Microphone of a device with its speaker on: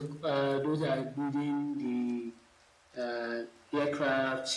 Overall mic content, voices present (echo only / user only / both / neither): echo only